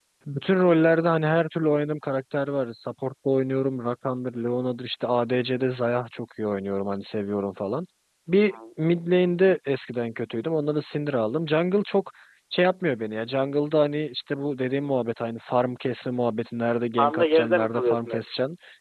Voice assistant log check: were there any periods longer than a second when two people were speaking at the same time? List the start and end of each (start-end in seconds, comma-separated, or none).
17.0-18.2